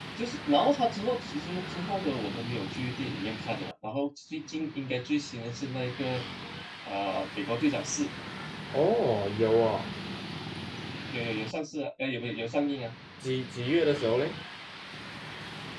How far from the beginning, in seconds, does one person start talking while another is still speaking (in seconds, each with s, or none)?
none